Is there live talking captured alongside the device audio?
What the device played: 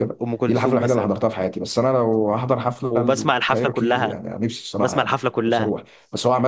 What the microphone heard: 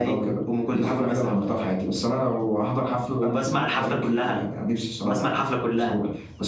No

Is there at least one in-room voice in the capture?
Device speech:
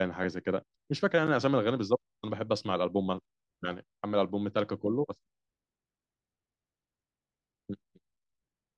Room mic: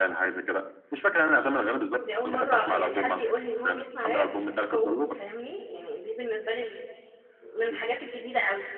Yes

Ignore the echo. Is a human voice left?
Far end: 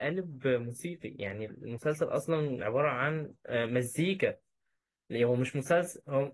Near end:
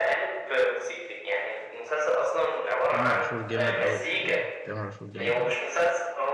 Yes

